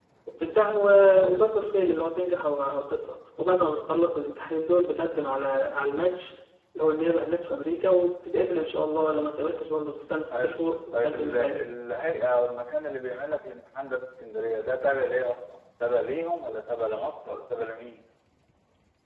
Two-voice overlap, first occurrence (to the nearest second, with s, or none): 10 s